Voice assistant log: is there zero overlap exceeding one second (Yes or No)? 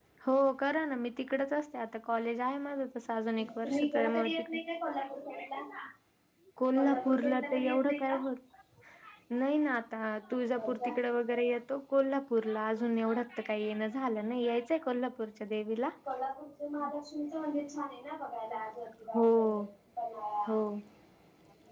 No